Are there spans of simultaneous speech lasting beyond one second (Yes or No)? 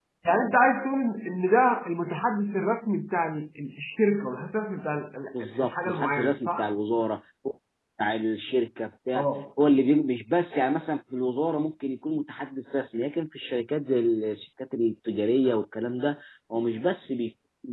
Yes